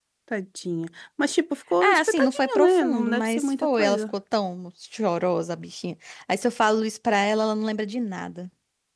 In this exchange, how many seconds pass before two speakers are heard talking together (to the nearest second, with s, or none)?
2 s